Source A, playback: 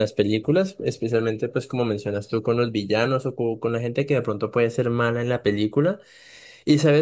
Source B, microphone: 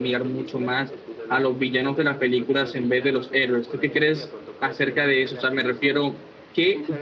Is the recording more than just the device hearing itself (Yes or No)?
Yes